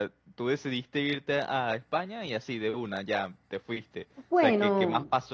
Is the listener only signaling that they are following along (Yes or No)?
Yes